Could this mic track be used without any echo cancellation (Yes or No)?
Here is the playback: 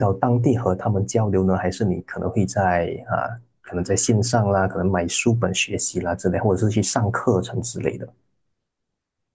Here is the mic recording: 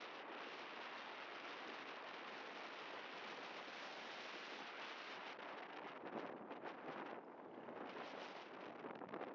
Yes